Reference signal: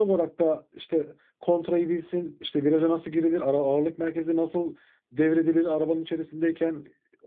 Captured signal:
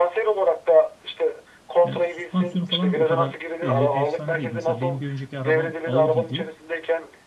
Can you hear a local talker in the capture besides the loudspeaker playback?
Yes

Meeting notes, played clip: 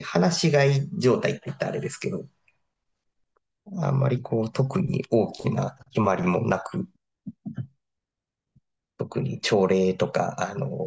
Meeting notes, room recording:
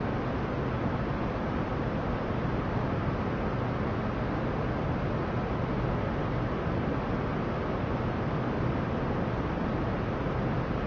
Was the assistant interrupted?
No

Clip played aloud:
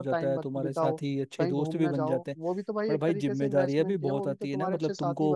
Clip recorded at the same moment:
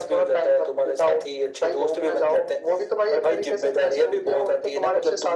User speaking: No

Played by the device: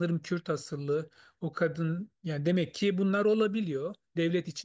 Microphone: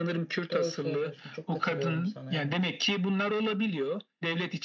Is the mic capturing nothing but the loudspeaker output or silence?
No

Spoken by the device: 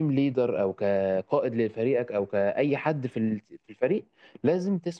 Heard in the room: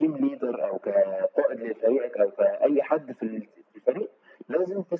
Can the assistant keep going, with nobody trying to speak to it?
Yes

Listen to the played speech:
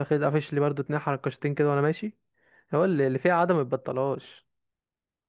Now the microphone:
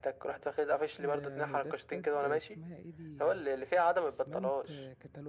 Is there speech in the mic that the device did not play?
Yes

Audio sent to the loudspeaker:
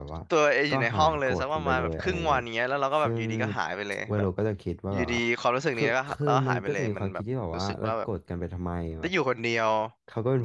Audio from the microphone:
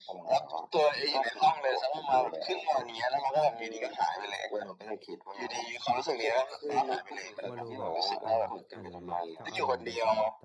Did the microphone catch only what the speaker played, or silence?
No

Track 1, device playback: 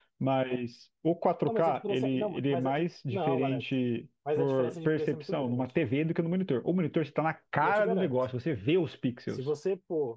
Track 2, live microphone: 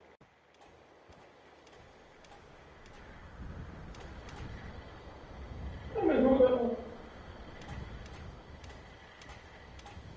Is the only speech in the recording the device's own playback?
No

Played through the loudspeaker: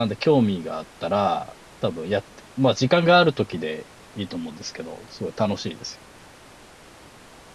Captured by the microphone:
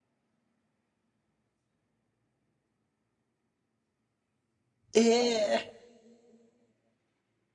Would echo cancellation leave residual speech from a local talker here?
Yes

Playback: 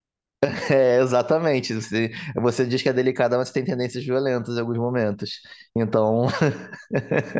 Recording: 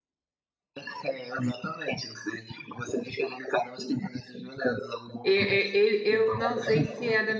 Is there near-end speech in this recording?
Yes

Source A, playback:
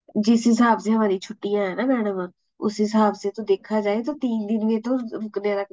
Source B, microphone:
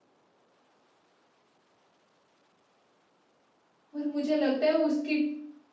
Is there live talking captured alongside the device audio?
Yes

